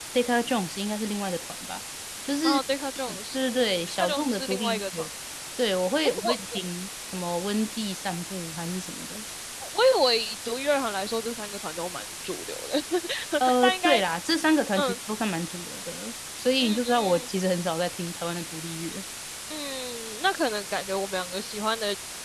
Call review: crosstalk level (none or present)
present